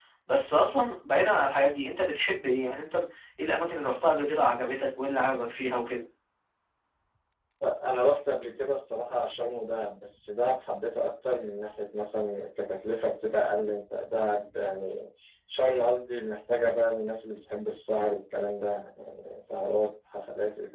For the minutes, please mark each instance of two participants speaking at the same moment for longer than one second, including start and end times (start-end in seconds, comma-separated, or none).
none